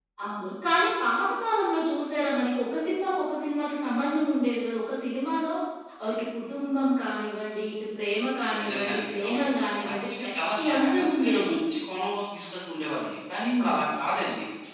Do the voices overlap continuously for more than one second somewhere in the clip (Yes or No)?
Yes